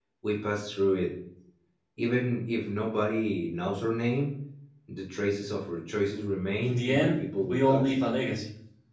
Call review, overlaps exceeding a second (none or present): present